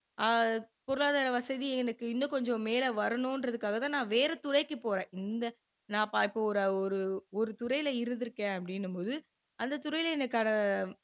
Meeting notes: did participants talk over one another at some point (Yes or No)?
No